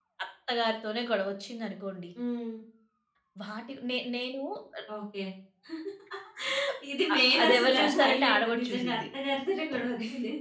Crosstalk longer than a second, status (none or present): present